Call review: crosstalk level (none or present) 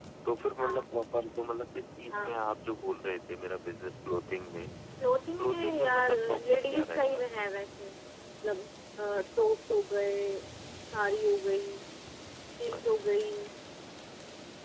present